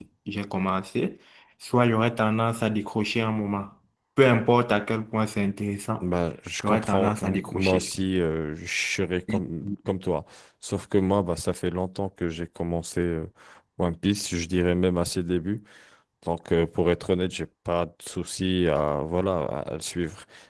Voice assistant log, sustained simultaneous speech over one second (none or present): present